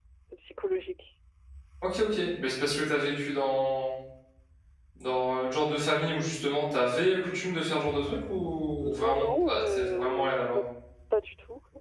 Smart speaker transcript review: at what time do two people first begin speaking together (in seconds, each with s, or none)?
8.8 s